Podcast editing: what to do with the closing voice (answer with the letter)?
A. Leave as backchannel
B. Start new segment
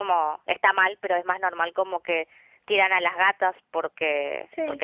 A